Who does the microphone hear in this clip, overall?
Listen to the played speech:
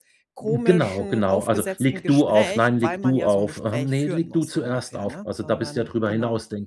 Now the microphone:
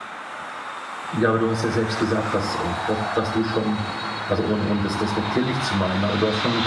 user only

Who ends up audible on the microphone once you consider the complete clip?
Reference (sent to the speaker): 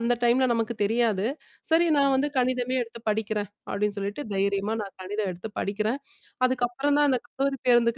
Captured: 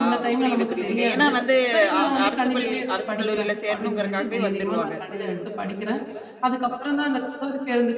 both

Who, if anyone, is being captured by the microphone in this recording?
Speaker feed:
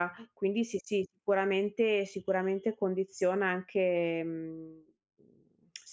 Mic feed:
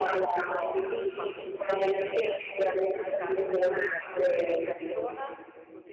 both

